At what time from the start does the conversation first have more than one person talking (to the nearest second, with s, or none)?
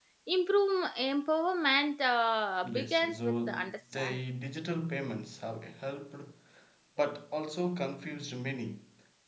3 s